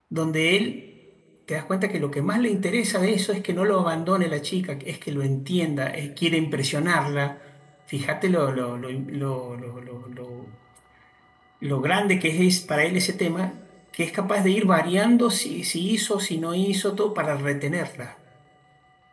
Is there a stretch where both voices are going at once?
No

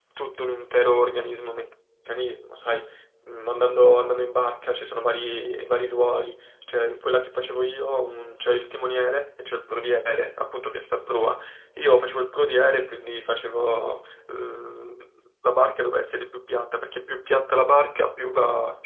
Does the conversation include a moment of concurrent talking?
No

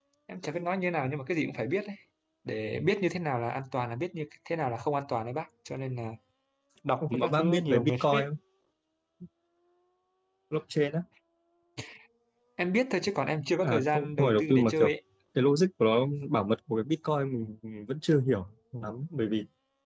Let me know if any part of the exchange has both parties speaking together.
Yes, from 7.0 s

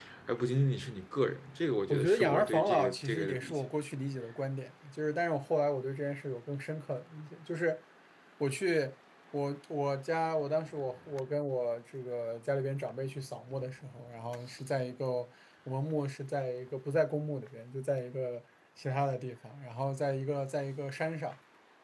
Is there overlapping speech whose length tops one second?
Yes, from 1.9 s

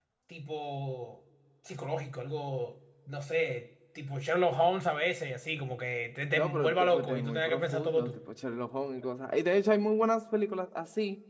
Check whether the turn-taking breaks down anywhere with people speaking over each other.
Yes, from 6.3 s

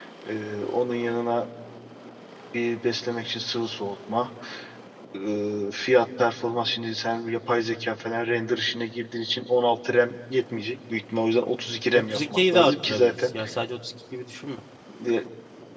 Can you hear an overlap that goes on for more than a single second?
Yes, from 11.9 s

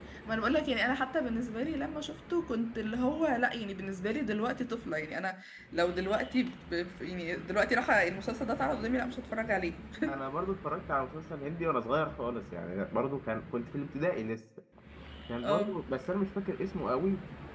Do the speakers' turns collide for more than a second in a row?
No

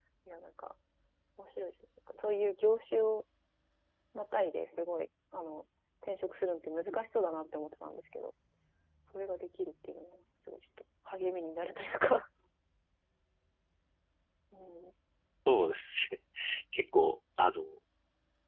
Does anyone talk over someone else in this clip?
No

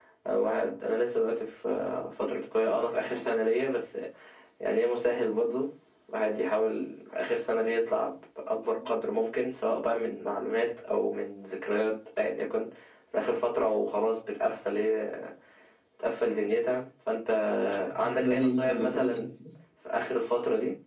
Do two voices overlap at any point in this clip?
Yes, from 18.0 s

